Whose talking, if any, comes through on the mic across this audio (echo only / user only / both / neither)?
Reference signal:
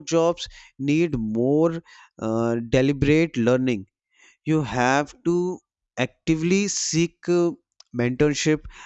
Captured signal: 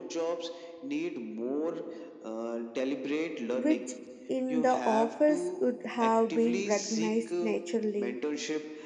both